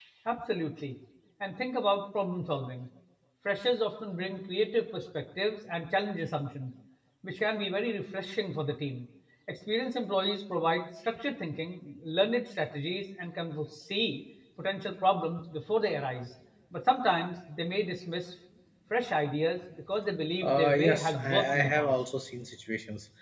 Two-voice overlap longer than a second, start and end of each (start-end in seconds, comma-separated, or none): 20.4-21.9